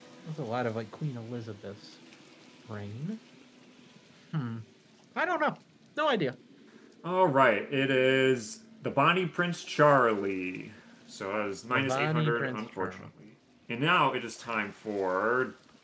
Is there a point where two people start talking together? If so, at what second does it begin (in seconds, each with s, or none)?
11.7 s